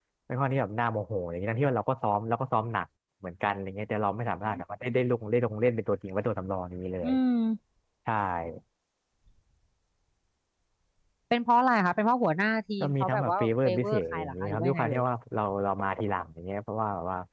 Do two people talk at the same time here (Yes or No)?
Yes